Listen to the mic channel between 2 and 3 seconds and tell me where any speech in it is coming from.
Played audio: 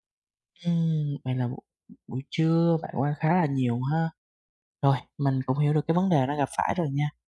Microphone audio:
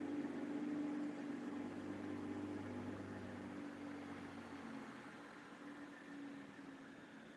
neither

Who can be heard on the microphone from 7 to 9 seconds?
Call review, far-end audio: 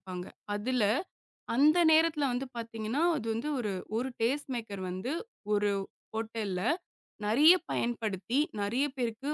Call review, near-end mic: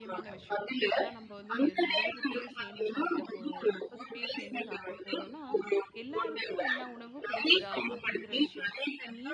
both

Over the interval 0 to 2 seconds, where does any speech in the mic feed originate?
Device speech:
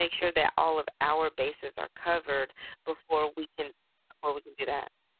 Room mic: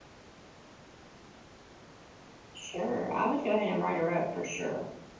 neither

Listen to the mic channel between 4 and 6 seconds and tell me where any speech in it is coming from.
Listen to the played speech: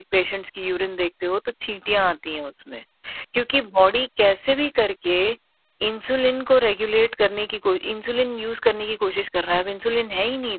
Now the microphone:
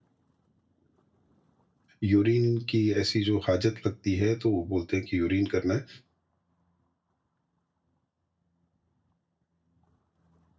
user only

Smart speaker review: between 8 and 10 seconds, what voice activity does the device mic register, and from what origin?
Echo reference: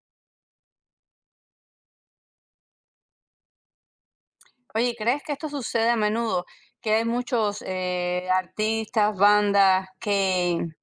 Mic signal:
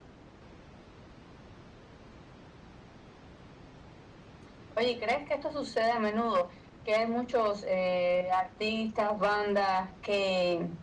echo only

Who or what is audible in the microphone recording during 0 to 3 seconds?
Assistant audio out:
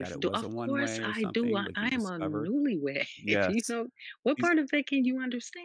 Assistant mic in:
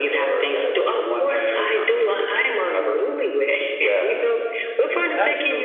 echo only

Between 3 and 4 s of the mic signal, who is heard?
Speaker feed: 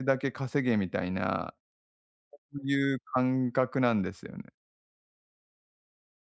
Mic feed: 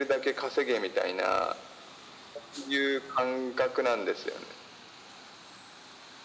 echo only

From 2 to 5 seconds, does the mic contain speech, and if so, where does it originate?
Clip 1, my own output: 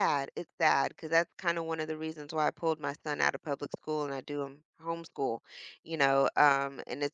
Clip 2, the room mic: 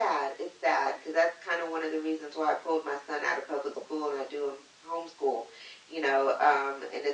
echo only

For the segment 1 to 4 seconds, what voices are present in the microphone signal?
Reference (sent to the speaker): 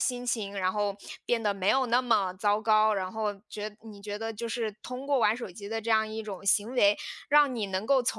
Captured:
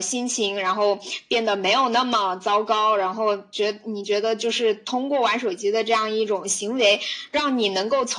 echo only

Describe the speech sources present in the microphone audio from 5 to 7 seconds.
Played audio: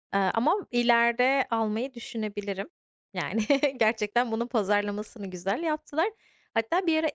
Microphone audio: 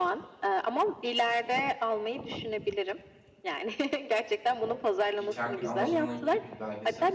both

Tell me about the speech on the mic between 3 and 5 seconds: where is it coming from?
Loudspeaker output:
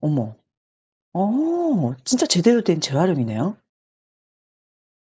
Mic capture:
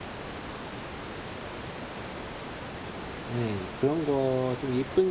user only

